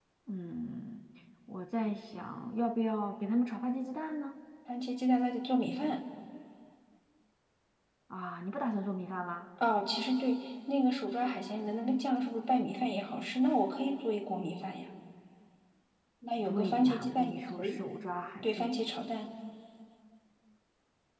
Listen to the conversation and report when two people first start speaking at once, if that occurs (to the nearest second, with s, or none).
16 s